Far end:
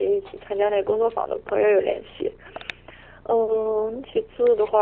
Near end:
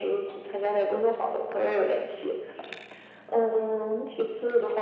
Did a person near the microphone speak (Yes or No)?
No